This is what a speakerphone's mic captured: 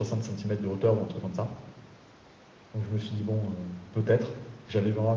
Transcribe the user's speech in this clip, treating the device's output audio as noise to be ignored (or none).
none